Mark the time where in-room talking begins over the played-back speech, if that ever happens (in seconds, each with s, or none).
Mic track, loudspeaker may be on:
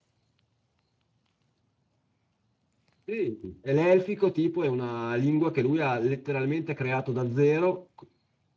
3.0 s